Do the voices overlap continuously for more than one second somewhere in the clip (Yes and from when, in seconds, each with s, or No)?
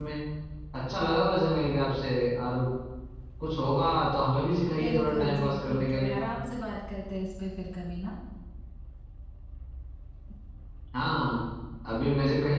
Yes, from 4.8 s